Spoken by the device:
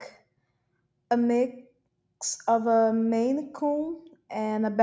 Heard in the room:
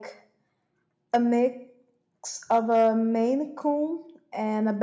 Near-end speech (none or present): none